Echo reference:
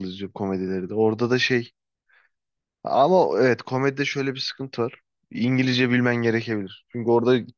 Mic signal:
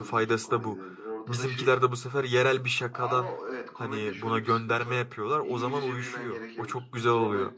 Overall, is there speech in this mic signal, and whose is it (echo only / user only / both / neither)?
both